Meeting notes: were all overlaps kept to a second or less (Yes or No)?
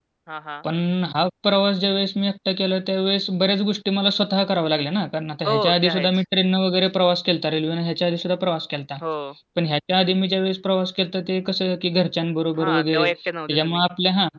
No